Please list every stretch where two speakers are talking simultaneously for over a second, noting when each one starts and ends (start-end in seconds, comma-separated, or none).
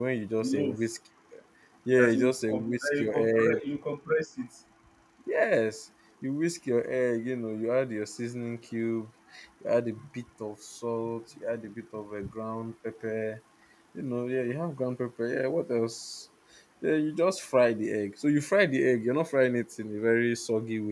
2.0-3.6